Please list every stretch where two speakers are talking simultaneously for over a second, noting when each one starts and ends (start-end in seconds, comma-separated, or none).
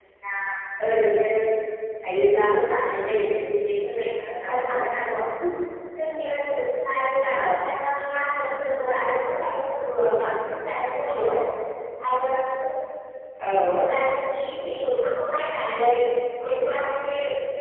none